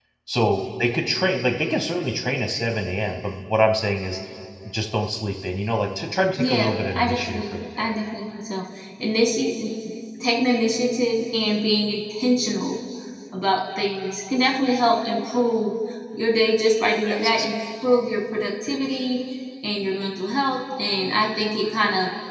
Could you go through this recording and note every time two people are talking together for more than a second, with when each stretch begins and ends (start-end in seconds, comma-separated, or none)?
6.4-7.9